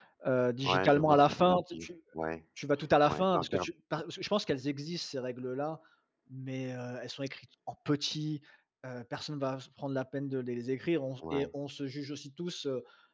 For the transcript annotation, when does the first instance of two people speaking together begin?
1 s

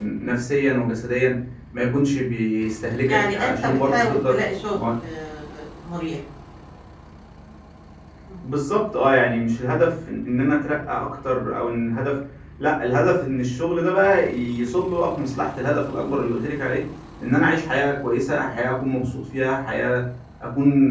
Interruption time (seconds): 3 s

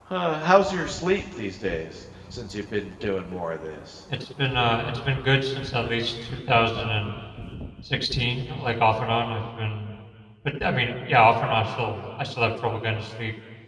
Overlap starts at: none

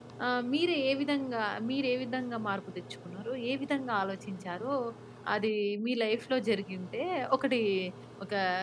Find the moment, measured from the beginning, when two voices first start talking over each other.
none

